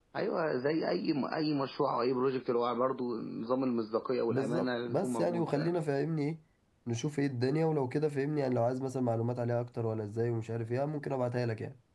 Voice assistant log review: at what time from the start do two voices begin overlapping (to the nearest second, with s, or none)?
4 s